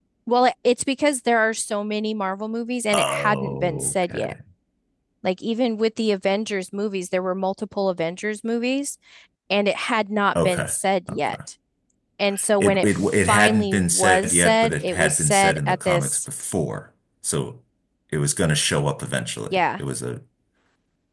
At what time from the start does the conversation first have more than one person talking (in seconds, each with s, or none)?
2.9 s